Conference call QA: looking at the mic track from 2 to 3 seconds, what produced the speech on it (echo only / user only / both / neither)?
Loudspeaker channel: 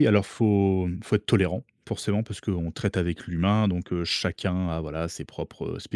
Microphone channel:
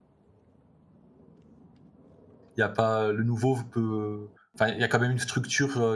user only